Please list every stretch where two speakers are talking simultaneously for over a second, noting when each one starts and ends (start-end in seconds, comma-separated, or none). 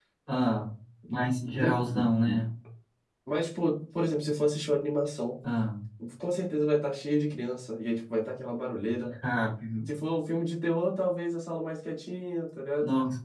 none